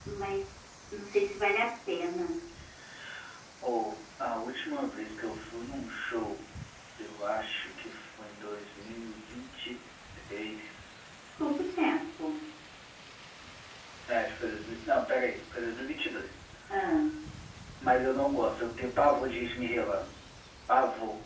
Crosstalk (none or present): none